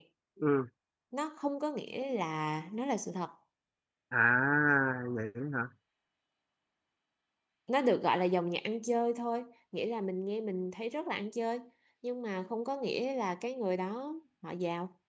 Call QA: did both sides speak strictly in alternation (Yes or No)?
Yes